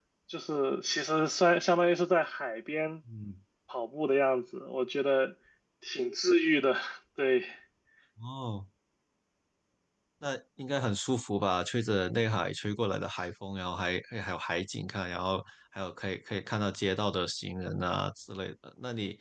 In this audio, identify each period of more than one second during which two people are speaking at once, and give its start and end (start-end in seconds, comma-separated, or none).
none